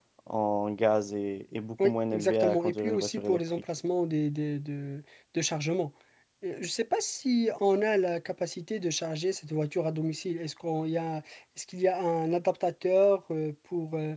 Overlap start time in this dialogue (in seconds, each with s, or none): 1.8 s